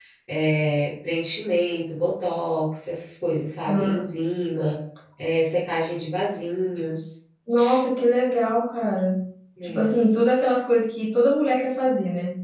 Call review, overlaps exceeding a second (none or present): none